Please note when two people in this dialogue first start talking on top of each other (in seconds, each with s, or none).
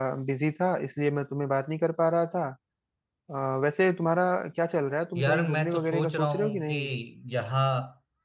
5.2 s